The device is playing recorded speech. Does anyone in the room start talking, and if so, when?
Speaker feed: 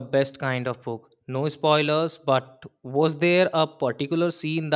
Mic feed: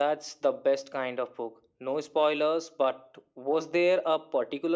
none

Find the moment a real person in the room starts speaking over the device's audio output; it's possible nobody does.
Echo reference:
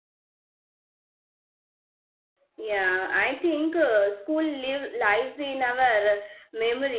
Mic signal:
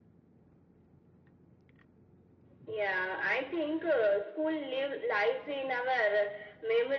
none

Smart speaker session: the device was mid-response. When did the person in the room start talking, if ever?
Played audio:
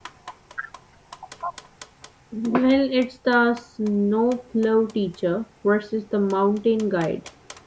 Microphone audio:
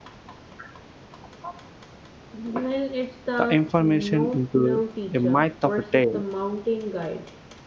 3 s

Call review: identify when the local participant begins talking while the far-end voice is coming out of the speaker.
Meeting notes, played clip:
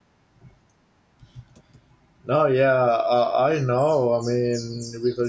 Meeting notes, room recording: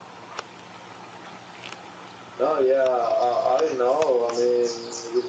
none

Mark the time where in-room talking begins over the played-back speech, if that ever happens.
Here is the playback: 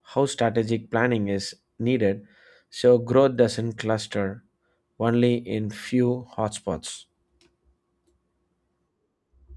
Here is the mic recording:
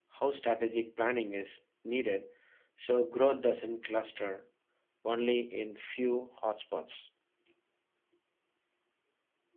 none

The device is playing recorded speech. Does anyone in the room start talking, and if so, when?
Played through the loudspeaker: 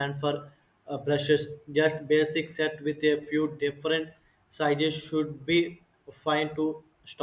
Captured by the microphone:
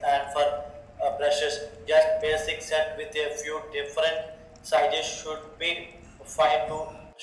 none

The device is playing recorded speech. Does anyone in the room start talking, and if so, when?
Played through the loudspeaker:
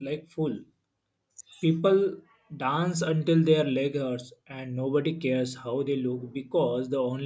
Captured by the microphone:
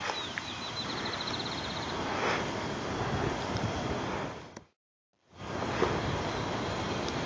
none

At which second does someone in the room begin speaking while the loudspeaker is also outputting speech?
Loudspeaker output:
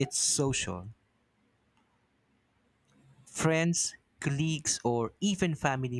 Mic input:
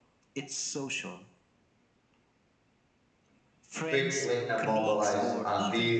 4 s

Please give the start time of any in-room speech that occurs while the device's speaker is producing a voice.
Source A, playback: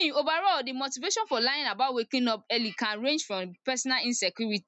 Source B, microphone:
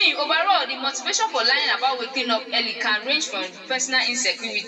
none

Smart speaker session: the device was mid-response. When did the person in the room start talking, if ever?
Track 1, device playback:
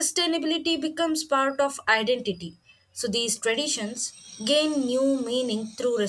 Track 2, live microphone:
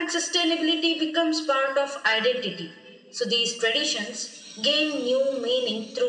none

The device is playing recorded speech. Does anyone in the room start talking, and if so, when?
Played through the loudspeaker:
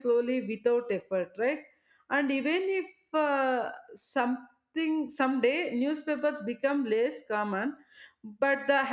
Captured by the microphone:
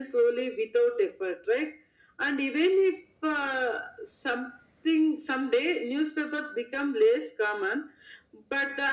none

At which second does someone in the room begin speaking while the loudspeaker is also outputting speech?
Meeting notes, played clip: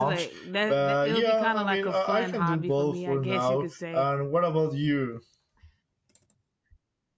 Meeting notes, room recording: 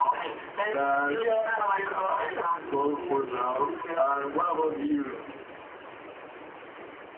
none

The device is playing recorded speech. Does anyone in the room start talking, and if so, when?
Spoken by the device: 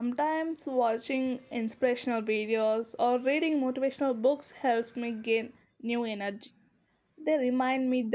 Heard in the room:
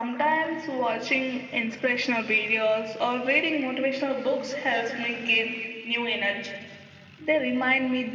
none

